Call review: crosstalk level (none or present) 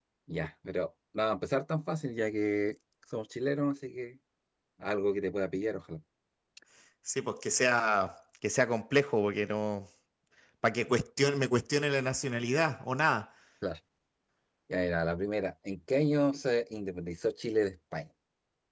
none